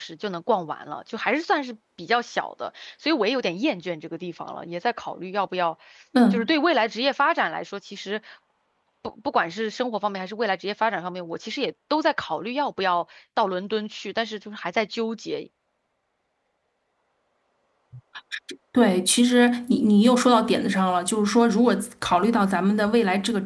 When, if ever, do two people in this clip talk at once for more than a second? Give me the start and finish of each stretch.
none

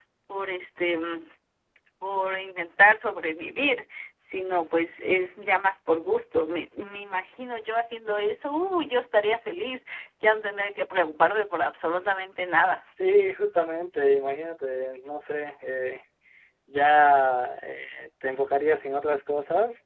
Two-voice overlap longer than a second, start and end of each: none

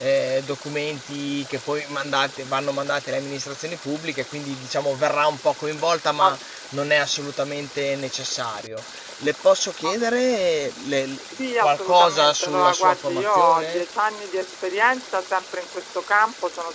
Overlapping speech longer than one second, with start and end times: 11.6-13.8

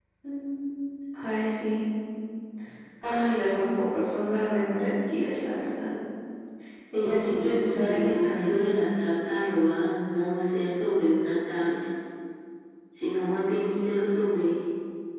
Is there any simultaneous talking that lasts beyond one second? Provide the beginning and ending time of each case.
7.0-8.8

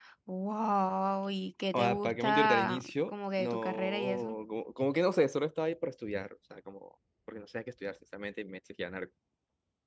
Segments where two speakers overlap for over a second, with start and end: 1.7-4.3

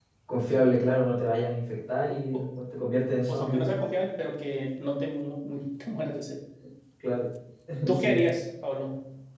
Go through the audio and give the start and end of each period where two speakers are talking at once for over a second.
none

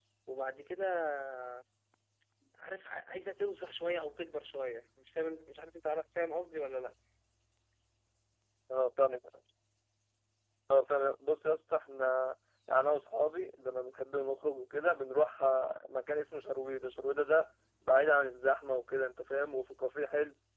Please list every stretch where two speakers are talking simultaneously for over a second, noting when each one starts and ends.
none

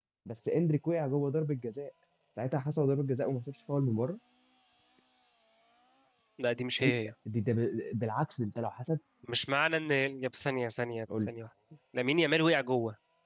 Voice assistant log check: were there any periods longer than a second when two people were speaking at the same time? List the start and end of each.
none

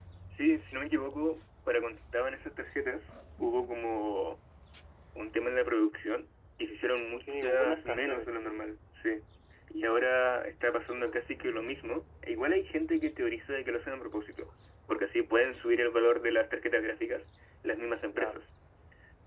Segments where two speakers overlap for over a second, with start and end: 7.2-8.6

